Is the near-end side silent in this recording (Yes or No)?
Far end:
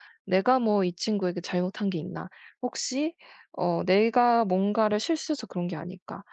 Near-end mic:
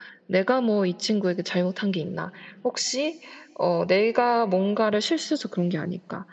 Yes